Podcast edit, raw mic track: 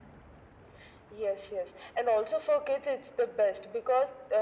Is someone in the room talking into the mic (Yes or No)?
No